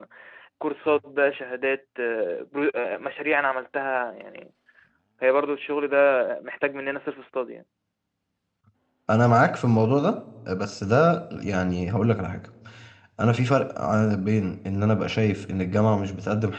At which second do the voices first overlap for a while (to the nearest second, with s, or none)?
none